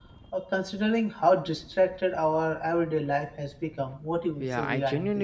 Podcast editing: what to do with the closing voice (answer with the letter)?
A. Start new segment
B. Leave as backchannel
A